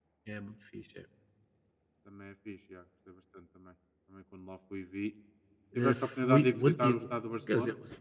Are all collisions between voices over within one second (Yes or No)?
No